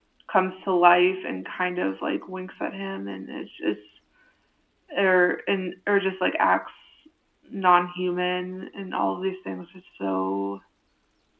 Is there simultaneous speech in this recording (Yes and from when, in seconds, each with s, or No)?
No